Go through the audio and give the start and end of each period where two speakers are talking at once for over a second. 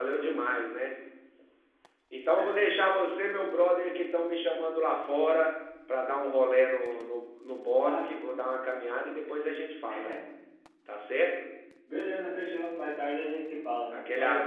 none

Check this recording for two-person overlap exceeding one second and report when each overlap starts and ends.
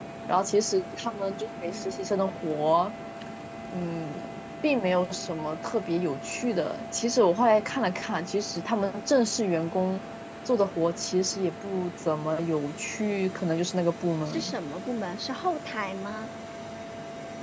none

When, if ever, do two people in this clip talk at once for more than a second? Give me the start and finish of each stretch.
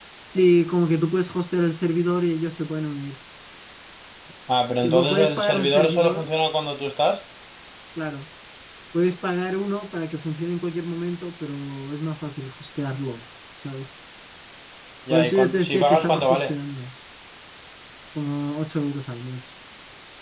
4.8-6.3, 15.1-16.5

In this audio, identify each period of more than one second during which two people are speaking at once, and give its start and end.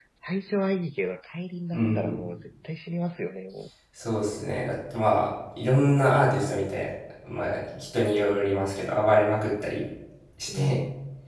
none

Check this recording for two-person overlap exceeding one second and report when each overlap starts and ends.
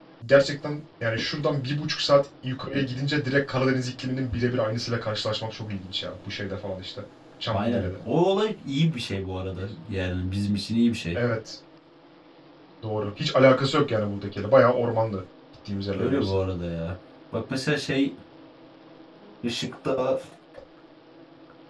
none

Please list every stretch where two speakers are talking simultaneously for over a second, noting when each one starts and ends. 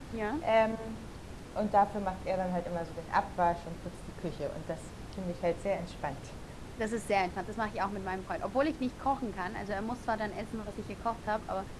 none

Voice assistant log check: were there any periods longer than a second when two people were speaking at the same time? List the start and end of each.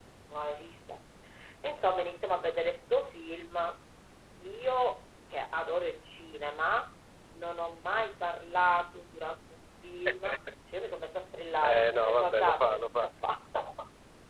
11.6-13.1

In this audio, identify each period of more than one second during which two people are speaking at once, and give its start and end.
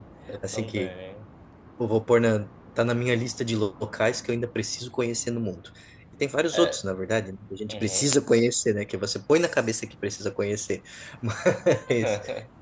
none

